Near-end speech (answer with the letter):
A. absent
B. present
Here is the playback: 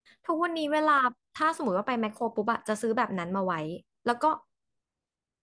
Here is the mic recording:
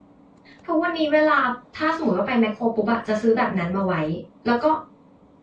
A